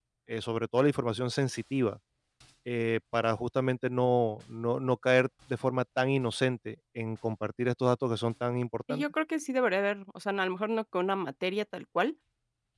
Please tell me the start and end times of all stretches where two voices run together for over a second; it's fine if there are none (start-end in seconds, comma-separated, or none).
none